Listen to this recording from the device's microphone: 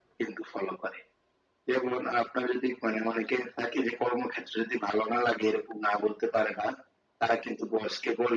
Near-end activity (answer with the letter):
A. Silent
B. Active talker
A